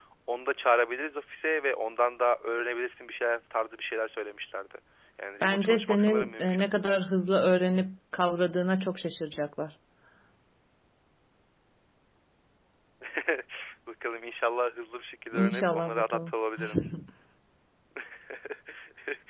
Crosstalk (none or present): present